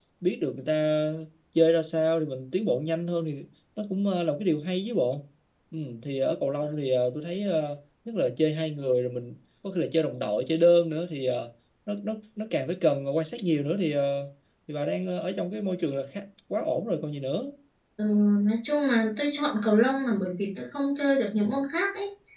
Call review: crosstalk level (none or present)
none